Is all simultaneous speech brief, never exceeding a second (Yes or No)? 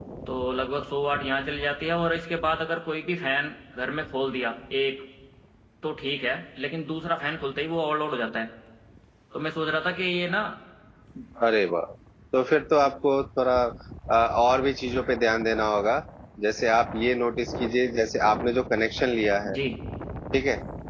Yes